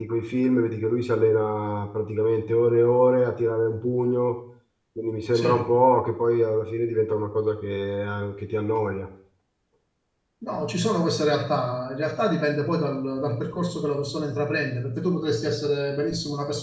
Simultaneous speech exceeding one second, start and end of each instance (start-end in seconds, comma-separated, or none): none